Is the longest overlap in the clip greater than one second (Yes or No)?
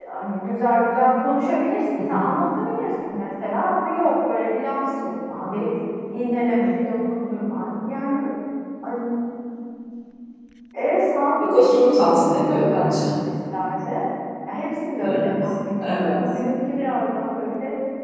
Yes